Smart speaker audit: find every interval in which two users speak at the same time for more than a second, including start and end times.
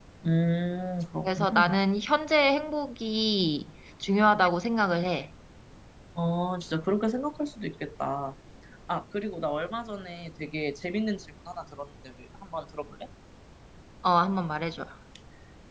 none

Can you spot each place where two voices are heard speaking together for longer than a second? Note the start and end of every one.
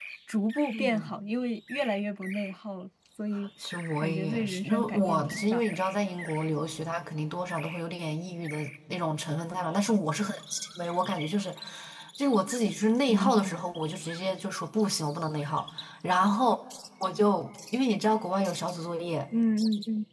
4.0-5.8

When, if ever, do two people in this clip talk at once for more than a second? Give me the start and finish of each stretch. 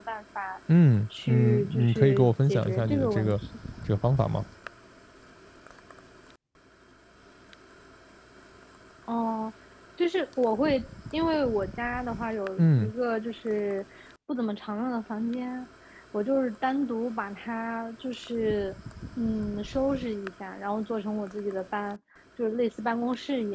1.3-3.4

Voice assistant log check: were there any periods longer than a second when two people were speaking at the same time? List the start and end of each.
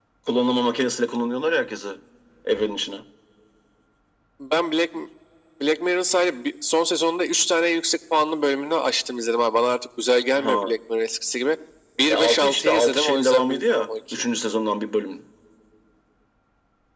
12.1-14.2

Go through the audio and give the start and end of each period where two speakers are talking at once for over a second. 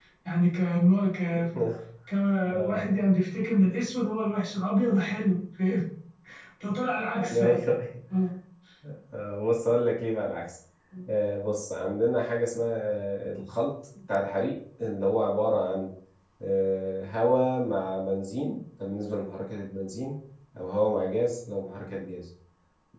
none

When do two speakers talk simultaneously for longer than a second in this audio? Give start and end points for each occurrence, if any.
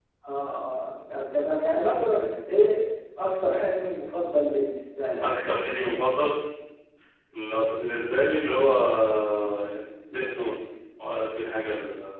none

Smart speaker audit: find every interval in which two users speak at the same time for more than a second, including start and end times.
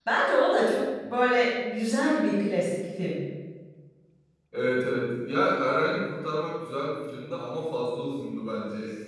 none

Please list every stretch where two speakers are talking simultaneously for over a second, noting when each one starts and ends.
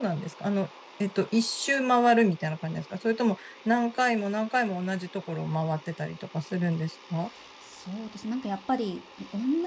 none

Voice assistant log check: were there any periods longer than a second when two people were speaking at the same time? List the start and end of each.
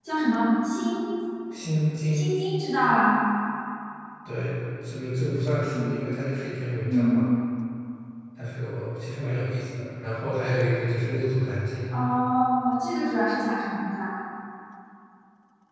none

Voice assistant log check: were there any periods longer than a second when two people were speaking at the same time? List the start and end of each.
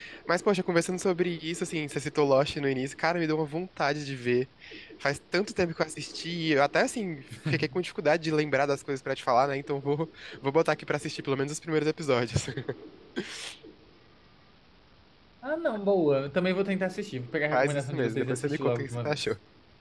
17.5-19.2

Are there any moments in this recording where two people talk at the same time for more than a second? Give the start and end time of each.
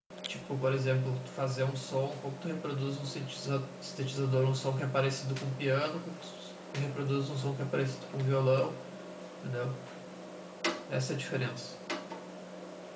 none

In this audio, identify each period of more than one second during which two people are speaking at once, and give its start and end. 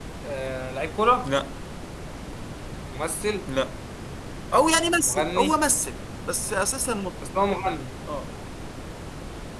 none

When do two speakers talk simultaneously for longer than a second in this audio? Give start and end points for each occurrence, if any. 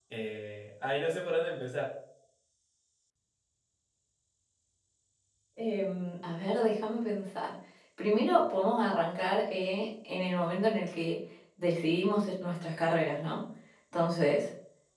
none

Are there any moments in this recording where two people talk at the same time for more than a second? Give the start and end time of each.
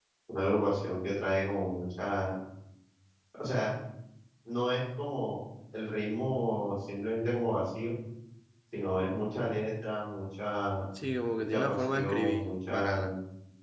11.5-13.1

